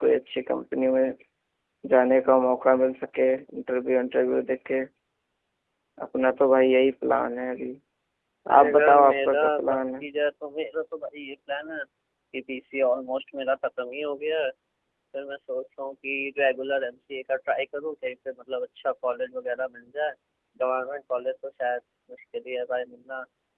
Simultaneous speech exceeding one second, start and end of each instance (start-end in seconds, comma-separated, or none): 8.6-10.1